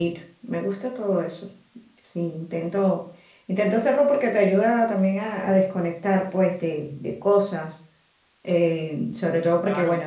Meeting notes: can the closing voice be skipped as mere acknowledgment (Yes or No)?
Yes